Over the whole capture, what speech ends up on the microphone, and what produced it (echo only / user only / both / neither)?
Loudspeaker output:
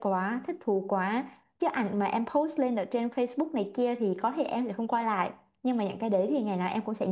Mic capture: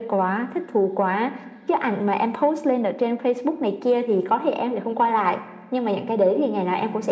echo only